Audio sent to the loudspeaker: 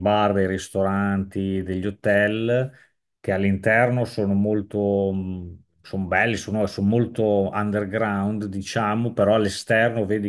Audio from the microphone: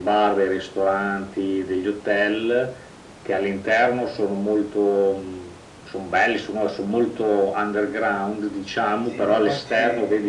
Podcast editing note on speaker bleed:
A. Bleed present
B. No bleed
A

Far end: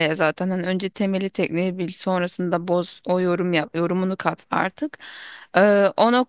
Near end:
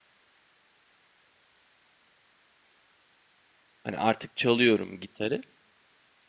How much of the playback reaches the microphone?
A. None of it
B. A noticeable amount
A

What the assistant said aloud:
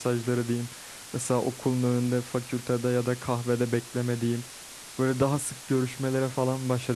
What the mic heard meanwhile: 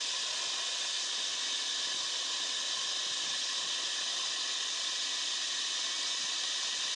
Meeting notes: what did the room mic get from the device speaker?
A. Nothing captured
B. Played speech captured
A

